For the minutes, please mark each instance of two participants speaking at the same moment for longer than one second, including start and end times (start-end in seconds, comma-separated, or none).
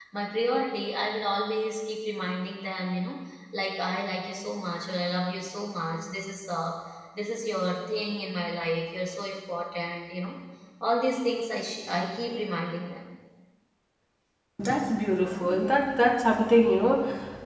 none